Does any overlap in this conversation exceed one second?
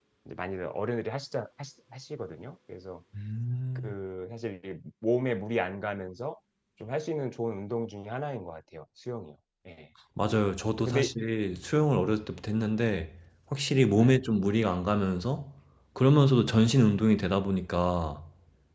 No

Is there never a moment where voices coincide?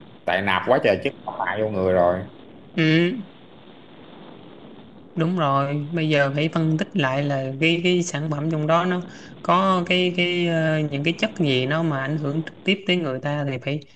Yes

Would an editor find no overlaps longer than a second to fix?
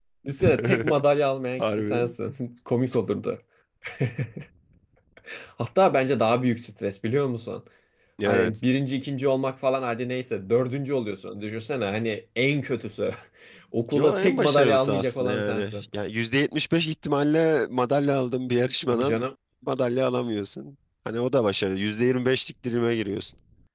No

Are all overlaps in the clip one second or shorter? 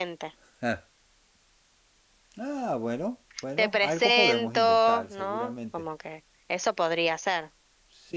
No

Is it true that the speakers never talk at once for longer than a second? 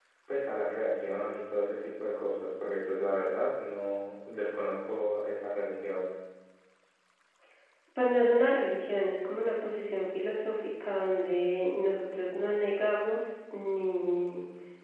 Yes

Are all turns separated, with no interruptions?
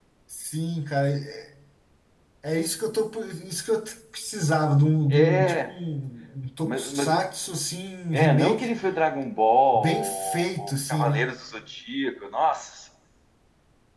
No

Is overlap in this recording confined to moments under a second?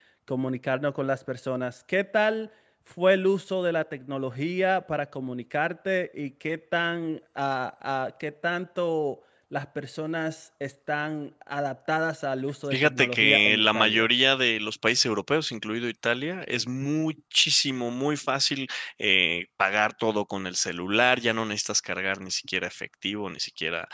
No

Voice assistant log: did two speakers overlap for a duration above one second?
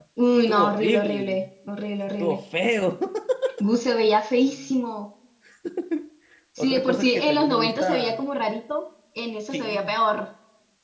Yes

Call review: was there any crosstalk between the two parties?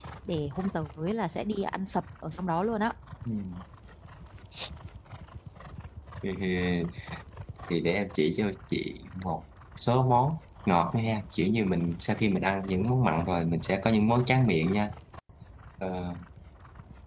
No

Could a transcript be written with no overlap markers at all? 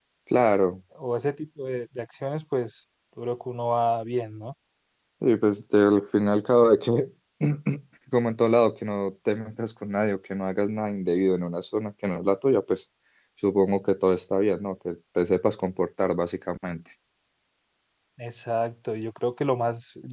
Yes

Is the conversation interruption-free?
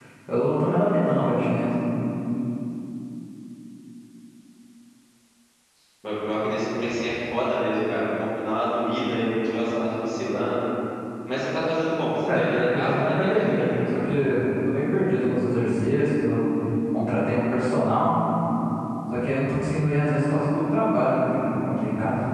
No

